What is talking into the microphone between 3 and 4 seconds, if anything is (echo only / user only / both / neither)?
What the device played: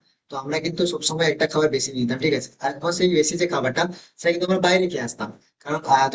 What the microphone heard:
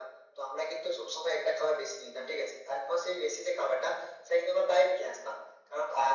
echo only